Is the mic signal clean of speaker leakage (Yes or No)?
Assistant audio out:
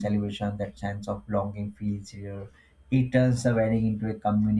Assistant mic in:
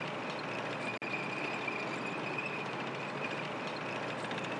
Yes